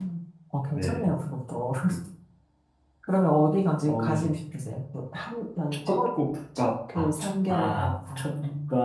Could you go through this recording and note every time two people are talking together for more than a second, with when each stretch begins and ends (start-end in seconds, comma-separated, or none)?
6.6-7.9